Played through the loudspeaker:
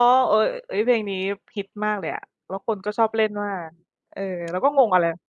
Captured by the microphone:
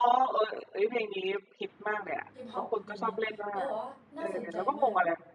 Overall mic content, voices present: both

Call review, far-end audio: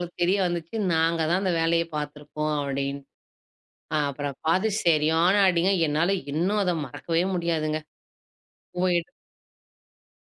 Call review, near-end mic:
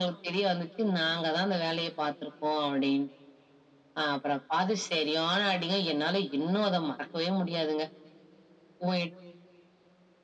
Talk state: echo only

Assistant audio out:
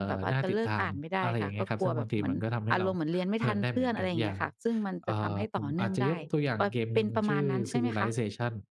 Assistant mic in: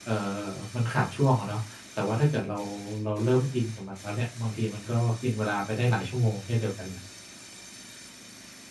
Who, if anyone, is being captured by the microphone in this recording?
user only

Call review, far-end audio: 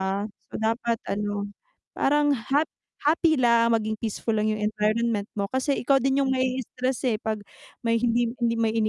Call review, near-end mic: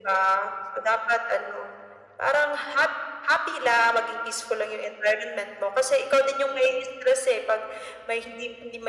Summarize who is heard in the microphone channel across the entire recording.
echo only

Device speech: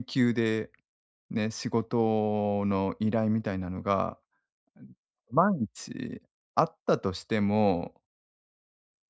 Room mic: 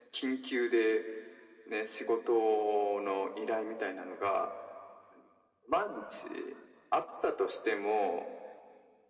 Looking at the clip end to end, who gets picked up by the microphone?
echo only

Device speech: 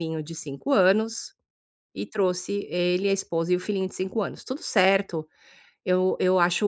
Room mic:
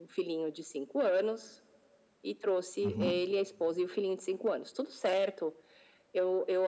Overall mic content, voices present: both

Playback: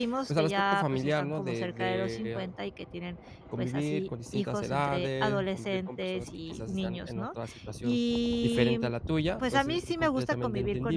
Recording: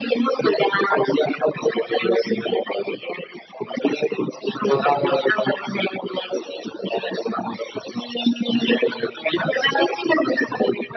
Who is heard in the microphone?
both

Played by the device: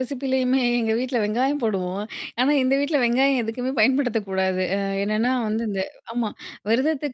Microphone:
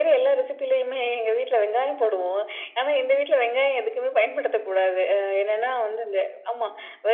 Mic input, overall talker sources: echo only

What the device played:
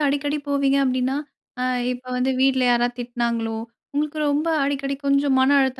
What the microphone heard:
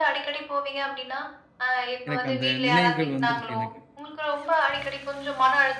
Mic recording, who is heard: both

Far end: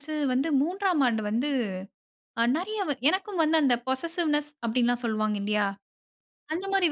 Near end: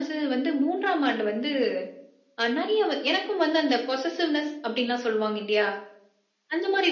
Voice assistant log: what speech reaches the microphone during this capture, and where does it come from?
echo only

